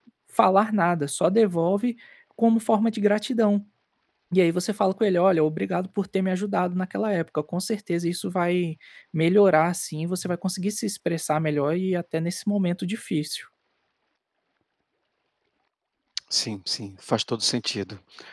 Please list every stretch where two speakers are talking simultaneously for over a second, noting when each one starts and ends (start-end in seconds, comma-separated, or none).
none